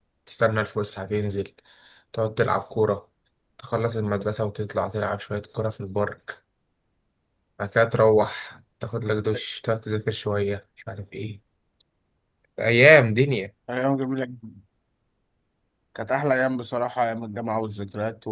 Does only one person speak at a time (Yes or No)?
Yes